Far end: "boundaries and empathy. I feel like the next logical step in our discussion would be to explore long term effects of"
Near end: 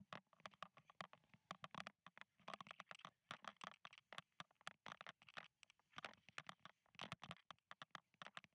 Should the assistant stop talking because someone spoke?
No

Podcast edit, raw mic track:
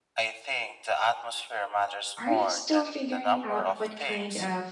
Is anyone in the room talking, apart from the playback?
Yes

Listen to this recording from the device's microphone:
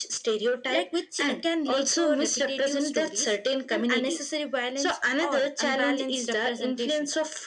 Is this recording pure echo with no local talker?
No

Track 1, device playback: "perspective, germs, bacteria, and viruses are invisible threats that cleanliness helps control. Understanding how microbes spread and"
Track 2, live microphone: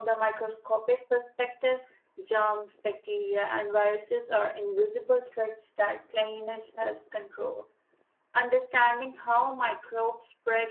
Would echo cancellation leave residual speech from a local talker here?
No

